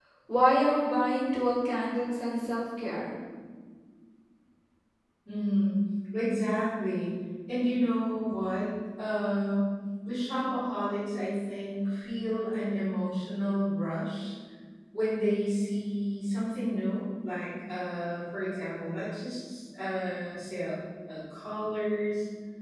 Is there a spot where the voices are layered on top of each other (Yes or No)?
No